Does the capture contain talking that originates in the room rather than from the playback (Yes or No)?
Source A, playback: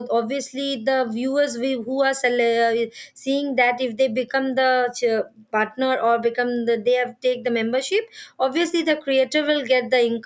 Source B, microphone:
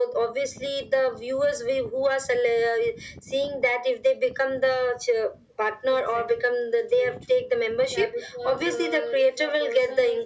Yes